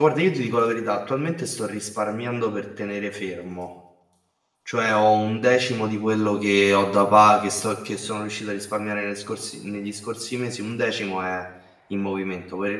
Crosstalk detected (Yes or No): No